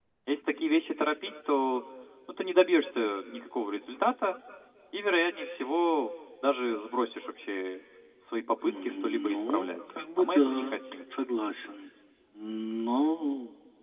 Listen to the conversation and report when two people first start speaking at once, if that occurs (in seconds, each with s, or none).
8.7 s